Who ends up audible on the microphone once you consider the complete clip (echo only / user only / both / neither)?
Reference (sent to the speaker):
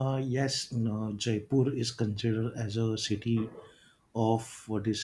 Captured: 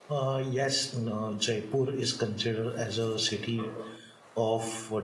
echo only